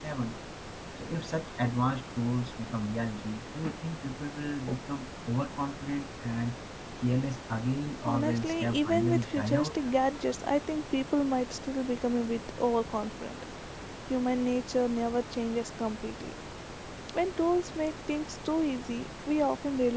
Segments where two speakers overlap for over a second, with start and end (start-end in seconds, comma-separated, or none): 8.0-9.7